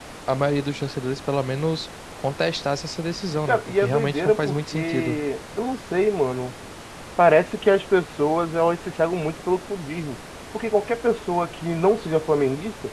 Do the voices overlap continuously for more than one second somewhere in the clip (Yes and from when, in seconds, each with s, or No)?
Yes, from 3.5 s